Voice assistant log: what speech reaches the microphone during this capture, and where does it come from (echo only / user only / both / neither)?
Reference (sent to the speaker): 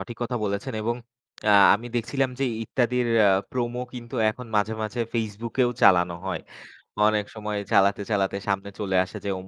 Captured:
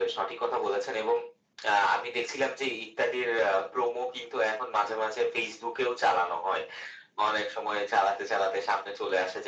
echo only